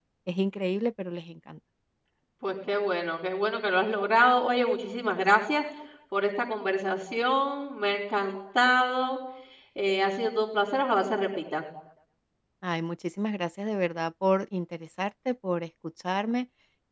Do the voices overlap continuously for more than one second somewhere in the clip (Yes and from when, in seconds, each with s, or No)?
No